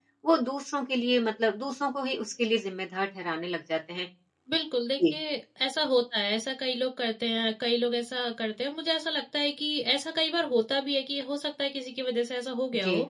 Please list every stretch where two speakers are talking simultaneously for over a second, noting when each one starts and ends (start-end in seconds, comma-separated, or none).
none